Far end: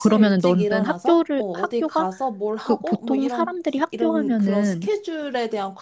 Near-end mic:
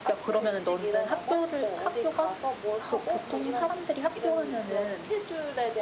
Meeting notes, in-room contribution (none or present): none